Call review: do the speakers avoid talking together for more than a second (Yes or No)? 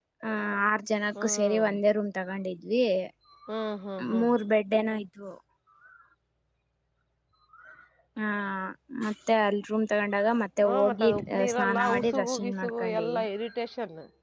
No